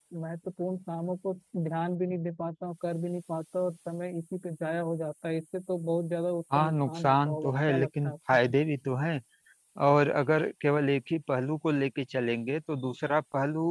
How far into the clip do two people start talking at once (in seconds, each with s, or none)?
6.5 s